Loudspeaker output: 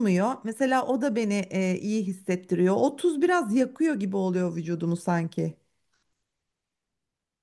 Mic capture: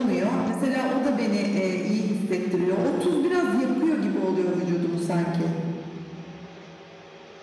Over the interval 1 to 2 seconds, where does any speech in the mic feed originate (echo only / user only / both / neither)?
echo only